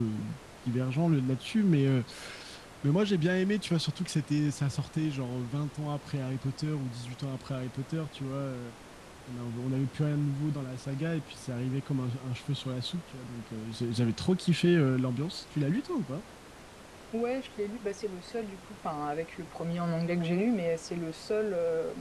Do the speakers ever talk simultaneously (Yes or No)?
No